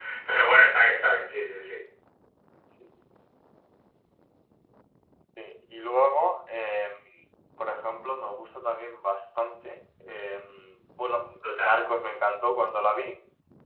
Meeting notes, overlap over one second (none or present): none